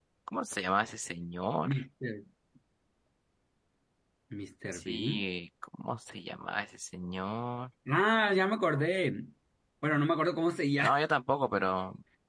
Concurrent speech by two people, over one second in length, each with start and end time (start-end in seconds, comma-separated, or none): none